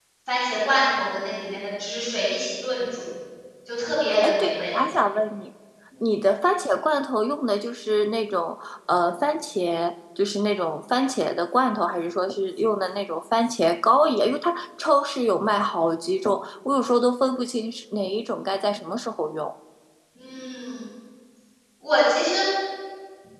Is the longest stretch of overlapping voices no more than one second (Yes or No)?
Yes